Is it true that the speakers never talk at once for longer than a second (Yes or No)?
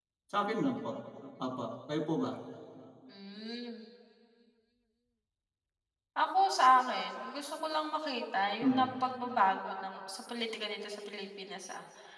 Yes